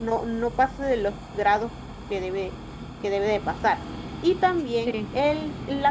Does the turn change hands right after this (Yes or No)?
No